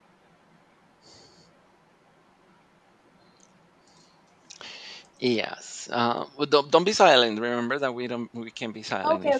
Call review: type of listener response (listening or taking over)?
taking over